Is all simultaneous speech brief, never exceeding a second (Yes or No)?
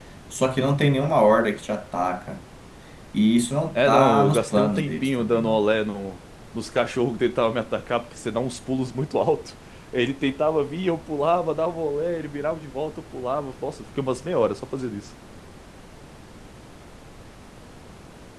No